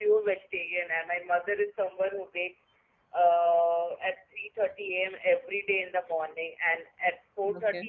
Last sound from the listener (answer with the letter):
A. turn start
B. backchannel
B